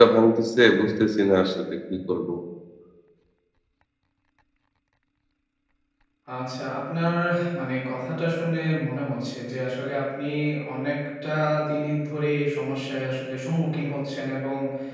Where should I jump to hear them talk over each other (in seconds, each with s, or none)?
none